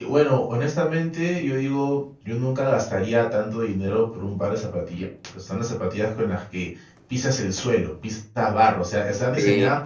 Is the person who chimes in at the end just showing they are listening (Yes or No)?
Yes